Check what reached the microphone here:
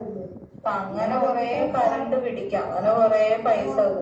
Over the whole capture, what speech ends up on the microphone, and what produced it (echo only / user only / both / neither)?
echo only